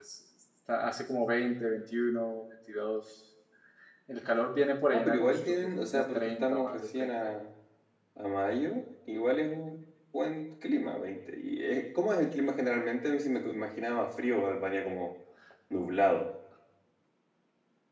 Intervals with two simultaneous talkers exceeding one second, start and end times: 4.9-7.1

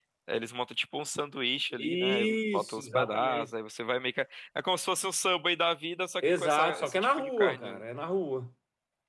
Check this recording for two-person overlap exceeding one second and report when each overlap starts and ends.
1.8-3.5, 6.3-7.8

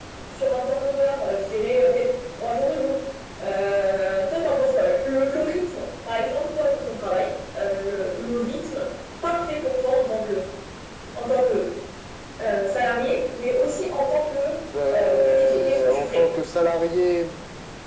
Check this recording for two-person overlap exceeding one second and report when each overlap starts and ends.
14.9-16.3

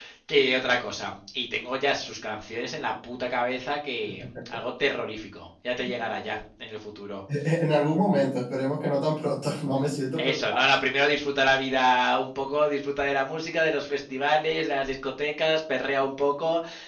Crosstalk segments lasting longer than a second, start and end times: none

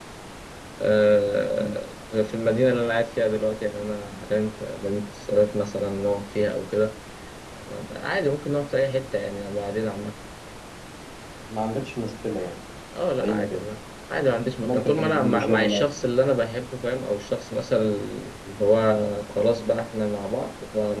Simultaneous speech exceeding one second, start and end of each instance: 14.6-15.8

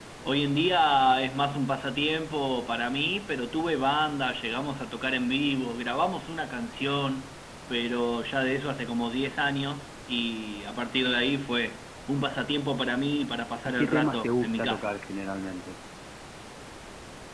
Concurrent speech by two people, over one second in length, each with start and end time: 13.7-14.9

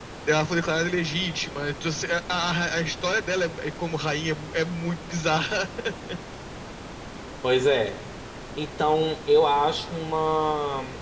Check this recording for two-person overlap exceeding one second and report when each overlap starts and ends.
none

